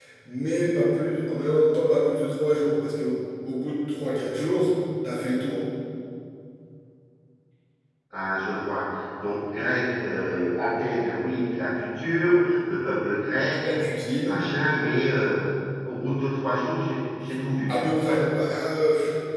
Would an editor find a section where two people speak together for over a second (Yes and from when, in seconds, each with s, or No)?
No